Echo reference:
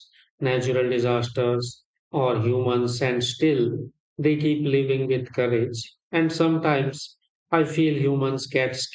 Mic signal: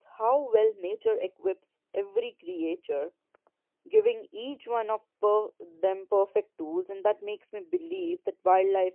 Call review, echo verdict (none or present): none